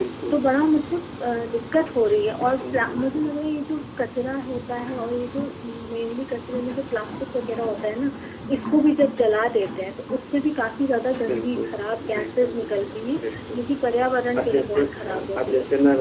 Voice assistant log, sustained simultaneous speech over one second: present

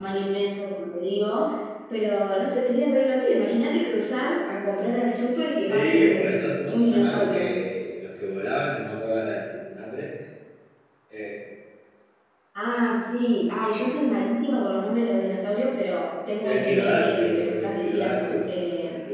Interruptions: present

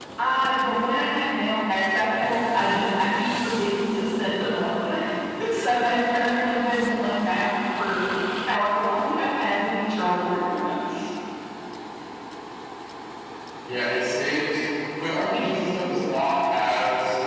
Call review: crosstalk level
none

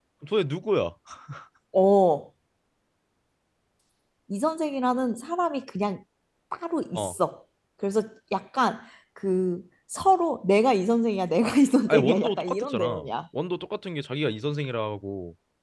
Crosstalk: present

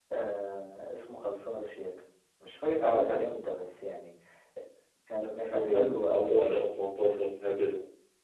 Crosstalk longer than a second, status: present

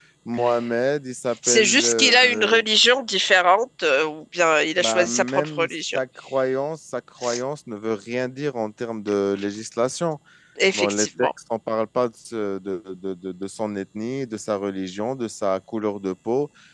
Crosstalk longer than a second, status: present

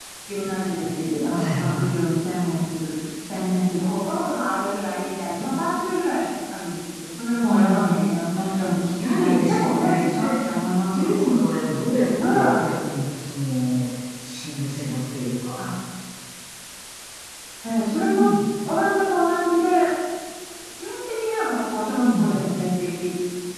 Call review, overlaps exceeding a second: present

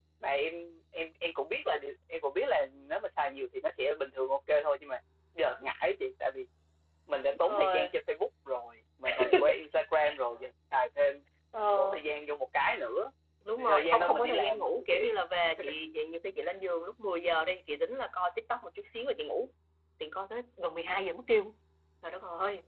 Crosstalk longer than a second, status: present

